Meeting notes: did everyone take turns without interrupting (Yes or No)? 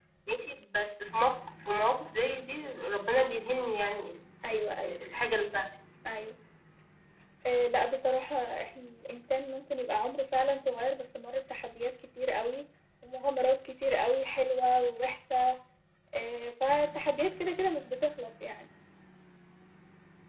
Yes